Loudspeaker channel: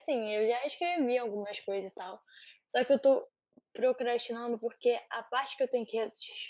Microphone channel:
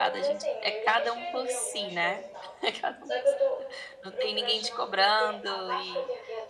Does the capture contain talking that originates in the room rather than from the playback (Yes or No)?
Yes